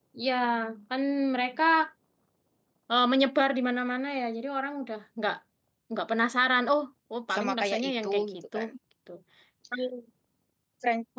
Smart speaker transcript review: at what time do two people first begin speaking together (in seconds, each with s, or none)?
7.3 s